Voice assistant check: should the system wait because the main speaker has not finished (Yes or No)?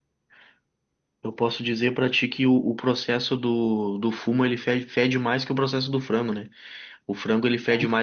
Yes